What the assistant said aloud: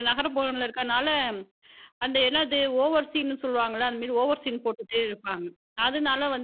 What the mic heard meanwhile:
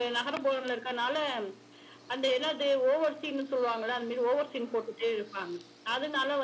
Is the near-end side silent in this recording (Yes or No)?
Yes